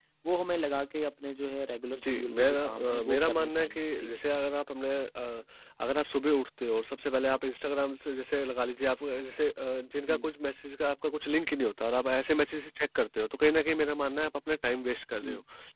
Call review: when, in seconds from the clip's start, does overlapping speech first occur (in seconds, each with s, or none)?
1.9 s